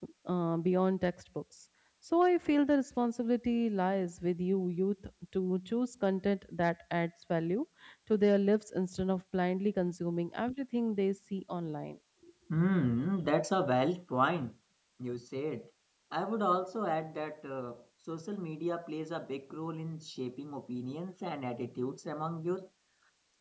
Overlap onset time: none

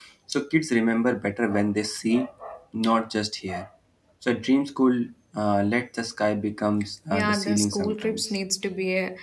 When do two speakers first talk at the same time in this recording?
7.1 s

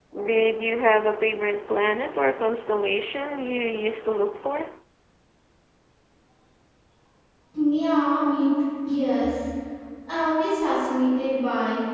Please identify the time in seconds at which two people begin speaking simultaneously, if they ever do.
none

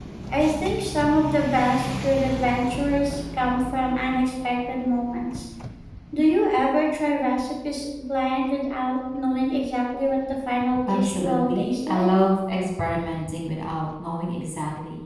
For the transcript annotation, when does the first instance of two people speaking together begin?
10.9 s

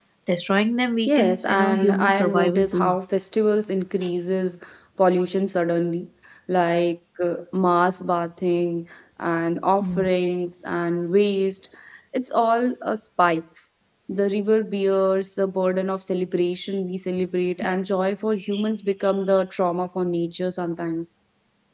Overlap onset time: 1.1 s

